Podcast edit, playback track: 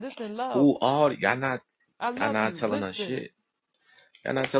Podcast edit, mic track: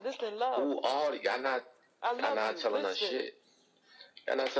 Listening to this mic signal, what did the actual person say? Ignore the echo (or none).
none